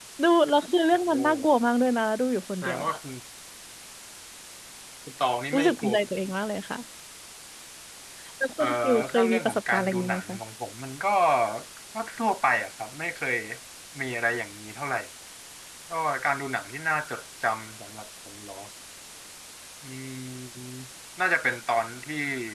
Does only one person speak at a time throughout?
No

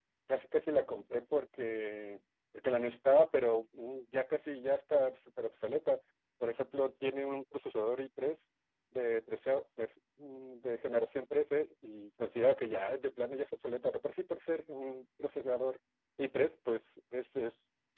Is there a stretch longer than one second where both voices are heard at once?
No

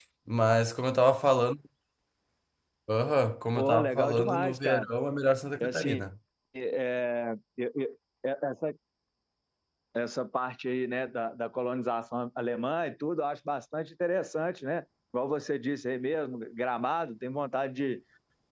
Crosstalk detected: Yes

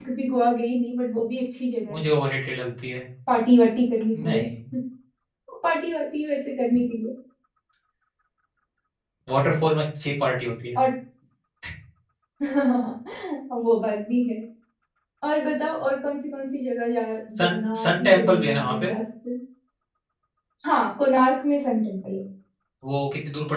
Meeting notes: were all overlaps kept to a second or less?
No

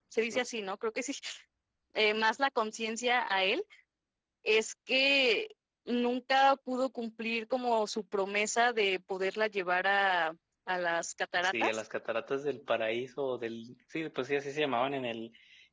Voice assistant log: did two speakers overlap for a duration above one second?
No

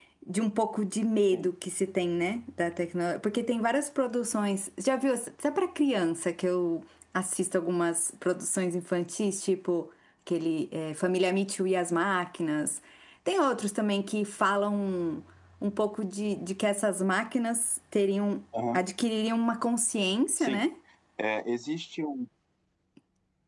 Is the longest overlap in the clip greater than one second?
No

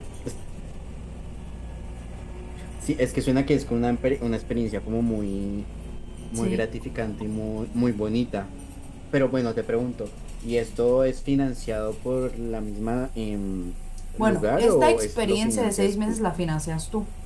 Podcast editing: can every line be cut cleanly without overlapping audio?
No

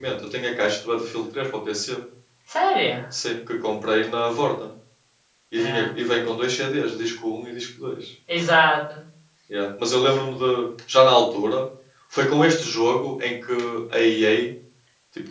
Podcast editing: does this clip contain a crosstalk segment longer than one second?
No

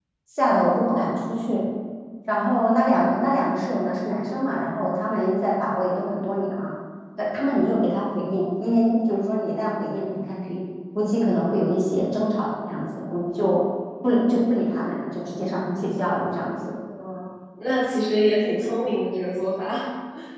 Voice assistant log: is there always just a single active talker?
Yes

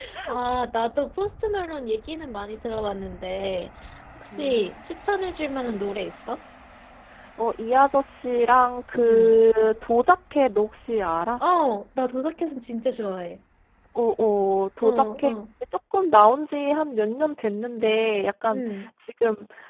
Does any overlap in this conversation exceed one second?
No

